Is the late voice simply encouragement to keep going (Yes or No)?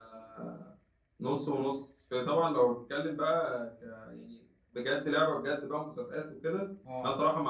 Yes